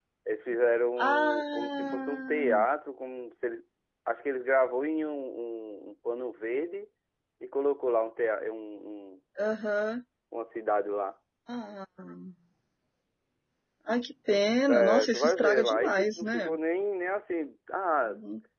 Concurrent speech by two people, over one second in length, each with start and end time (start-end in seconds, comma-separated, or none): 1.0-2.4, 14.7-16.5